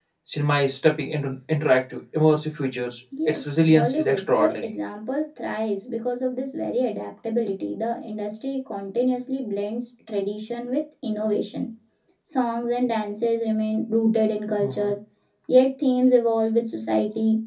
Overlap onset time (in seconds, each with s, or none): 3.3 s